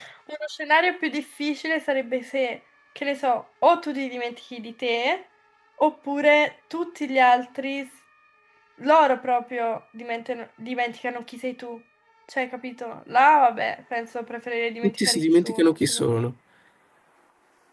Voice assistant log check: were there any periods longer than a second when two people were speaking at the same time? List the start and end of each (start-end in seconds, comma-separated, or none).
14.8-16.2